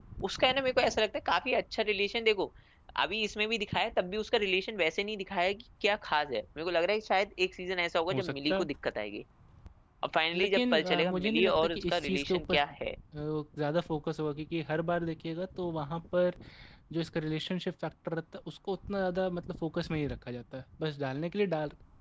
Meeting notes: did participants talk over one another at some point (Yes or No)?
Yes